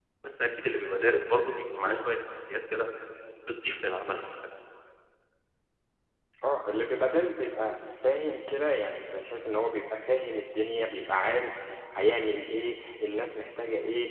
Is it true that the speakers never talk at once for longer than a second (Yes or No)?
Yes